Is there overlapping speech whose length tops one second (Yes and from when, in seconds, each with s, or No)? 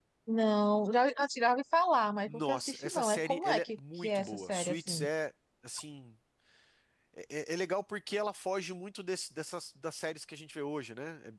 Yes, from 2.3 s